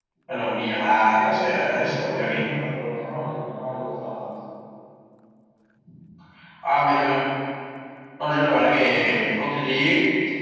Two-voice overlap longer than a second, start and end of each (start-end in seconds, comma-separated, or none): 1.1-2.4